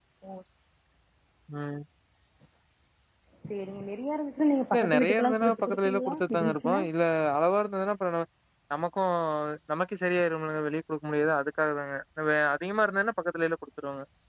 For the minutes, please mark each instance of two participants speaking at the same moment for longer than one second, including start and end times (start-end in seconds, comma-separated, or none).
4.7-6.8